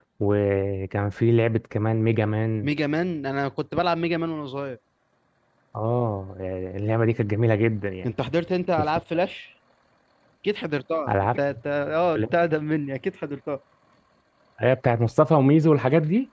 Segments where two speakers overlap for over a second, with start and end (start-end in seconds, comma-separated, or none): none